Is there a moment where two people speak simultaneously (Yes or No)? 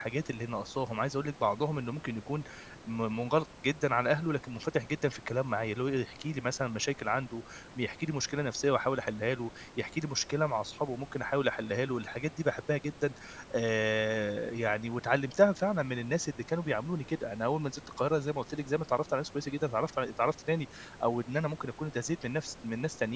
No